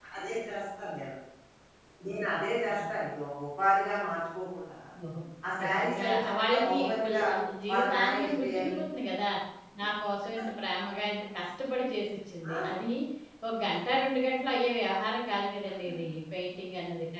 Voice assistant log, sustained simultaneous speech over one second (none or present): present